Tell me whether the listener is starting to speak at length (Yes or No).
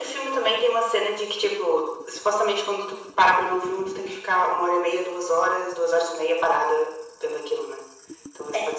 No